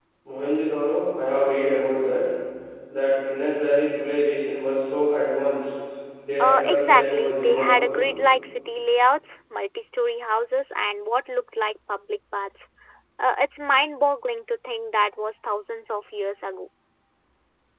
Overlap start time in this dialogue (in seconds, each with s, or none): 6.4 s